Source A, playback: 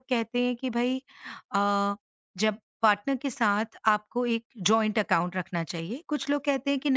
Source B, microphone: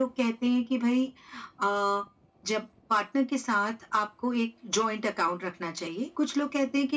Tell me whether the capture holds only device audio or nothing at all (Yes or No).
Yes